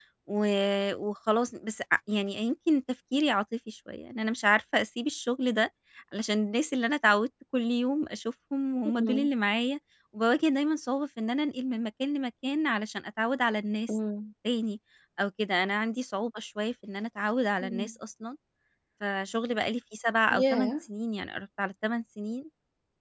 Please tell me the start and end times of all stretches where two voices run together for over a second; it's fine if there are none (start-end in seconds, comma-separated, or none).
none